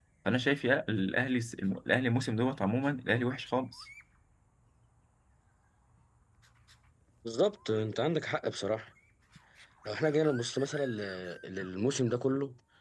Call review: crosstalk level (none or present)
none